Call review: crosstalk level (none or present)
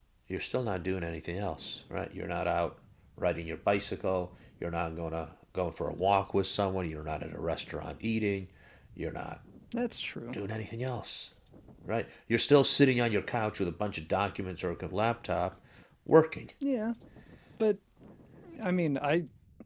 none